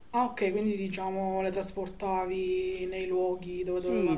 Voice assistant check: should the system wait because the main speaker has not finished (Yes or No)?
No